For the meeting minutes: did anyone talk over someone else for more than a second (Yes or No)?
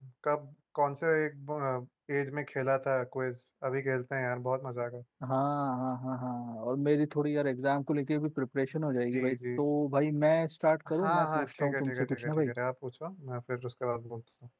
Yes